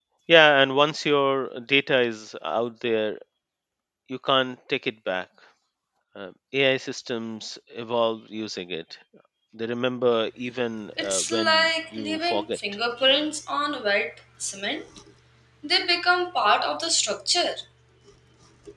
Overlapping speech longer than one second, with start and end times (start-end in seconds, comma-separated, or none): 11.0-12.6